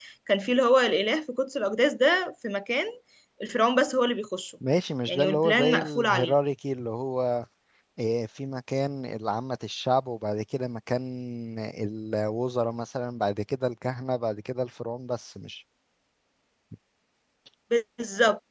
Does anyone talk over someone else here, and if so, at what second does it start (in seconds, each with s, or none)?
5.1 s